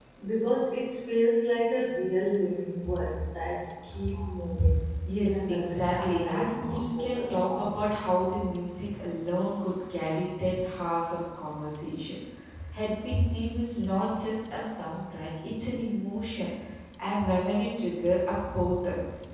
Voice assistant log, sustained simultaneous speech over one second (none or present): present